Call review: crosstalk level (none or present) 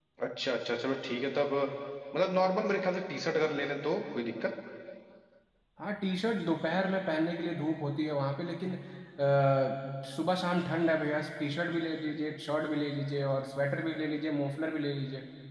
none